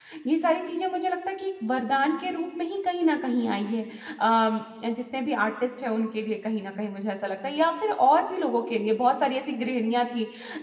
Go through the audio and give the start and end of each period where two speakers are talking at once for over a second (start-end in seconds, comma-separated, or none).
none